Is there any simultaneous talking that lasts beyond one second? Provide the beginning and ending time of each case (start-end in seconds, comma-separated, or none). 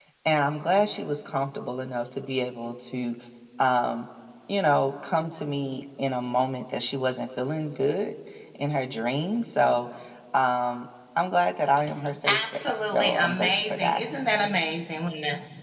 12.3-14.0